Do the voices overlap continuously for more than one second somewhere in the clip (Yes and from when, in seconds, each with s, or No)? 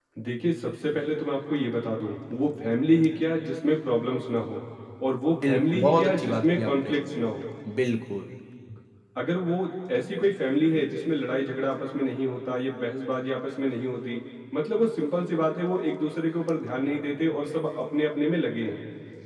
Yes, from 5.4 s